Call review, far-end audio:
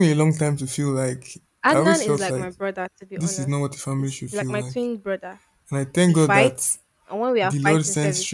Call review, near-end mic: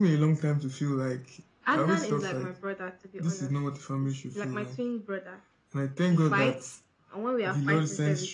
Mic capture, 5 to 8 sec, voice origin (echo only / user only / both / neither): echo only